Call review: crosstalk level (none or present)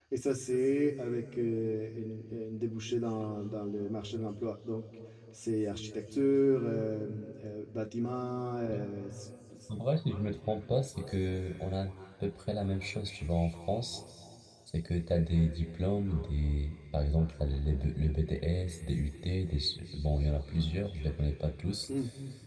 none